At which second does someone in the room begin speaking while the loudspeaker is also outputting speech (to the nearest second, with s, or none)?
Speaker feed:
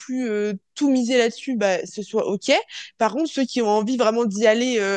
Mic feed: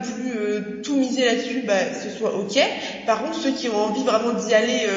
none